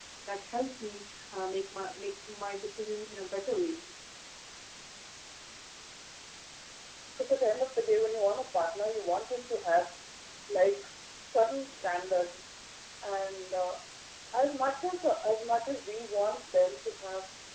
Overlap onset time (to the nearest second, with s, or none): none